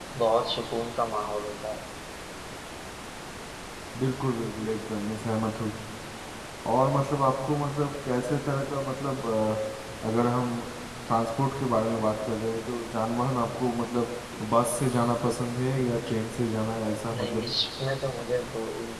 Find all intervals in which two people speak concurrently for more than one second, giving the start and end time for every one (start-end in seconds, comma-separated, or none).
none